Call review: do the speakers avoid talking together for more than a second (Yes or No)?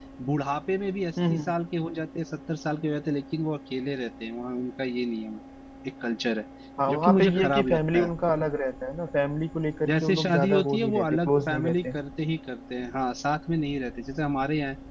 No